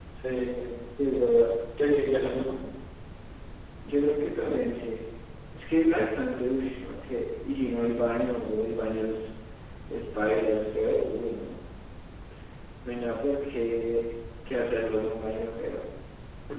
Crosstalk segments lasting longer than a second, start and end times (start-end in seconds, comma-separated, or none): none